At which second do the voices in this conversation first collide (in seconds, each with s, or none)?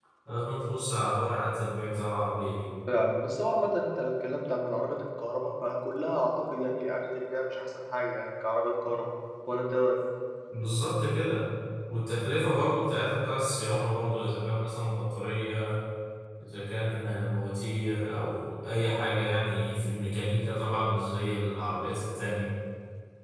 none